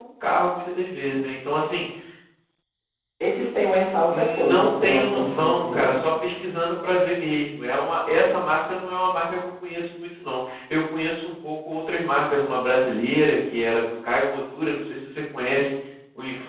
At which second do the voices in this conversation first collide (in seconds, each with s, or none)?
4.1 s